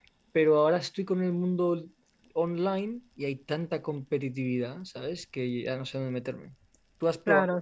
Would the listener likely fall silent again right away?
No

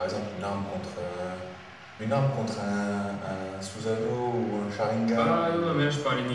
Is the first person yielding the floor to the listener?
Yes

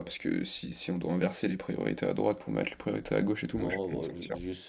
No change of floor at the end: No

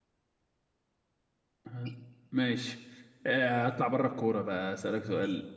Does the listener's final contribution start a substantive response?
No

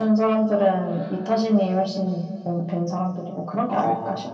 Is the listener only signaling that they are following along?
No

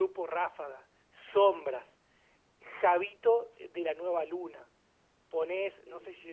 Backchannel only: Yes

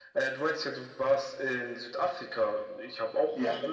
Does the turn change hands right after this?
No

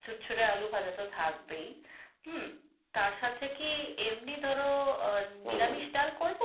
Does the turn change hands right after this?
No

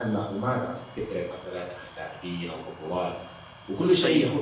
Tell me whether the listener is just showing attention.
Yes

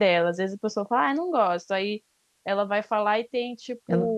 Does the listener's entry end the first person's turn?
No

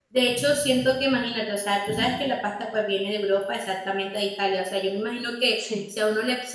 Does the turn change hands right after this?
No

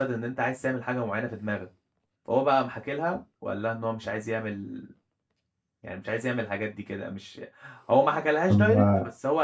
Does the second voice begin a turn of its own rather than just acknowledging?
No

